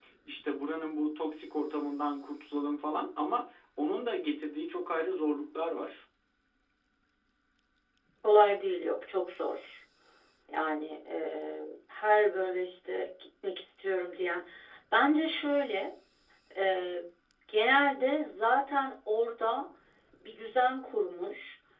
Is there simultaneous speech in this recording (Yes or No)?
No